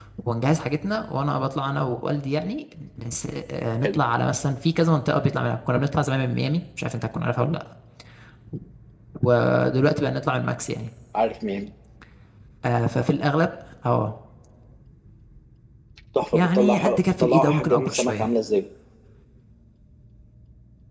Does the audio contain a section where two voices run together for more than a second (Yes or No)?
Yes